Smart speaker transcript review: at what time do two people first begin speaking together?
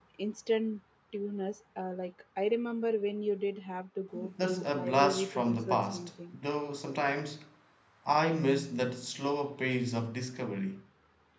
4.1 s

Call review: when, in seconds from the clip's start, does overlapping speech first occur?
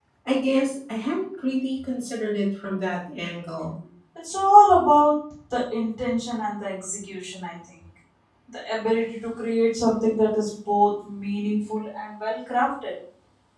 none

